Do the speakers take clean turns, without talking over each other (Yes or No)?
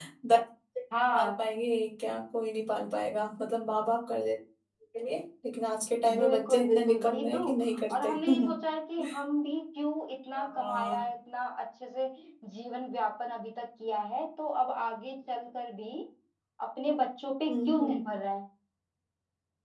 No